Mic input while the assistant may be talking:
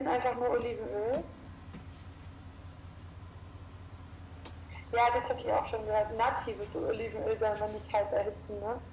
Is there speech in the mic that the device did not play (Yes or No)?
No